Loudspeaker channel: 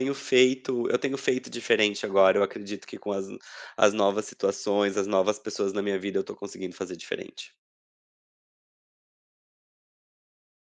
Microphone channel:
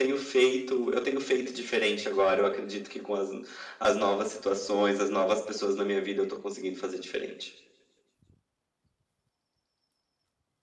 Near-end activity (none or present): none